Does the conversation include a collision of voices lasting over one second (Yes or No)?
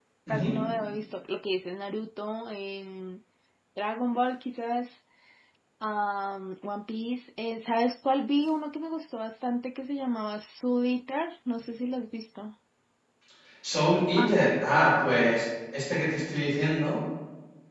No